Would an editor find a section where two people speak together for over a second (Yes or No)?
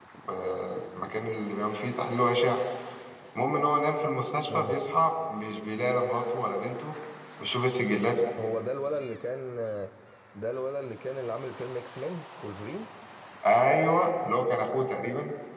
No